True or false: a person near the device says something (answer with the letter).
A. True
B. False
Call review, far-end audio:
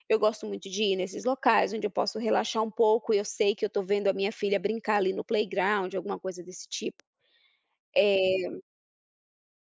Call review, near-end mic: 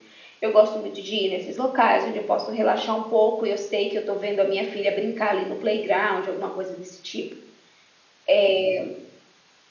B